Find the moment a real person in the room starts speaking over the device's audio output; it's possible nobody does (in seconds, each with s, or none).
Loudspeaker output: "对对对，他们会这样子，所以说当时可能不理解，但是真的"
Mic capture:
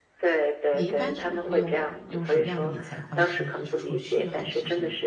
0.7 s